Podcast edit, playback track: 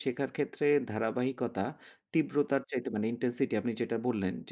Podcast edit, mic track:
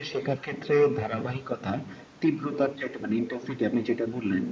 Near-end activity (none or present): none